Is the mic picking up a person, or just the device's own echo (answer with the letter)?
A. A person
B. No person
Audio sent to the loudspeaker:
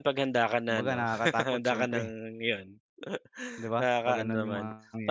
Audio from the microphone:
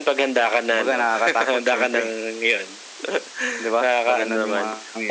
B